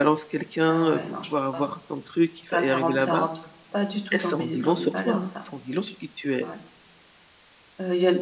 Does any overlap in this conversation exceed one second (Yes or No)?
Yes